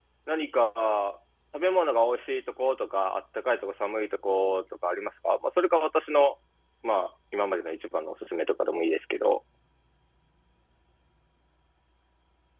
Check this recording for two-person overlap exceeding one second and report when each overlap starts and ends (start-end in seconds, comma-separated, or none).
none